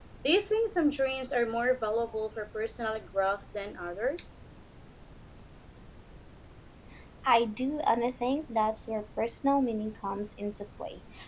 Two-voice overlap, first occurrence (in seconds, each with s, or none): none